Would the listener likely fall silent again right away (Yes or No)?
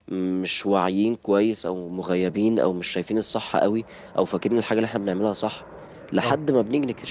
Yes